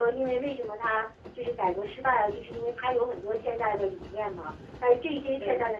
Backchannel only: Yes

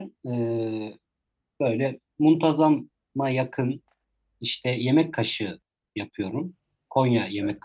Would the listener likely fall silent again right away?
Yes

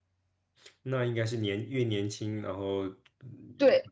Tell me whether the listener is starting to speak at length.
Yes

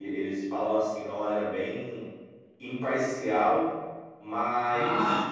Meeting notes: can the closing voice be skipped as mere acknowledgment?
Yes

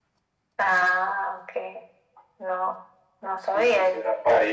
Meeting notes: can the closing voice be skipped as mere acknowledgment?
No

